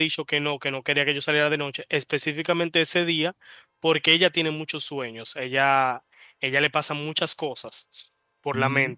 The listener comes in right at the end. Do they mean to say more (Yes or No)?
No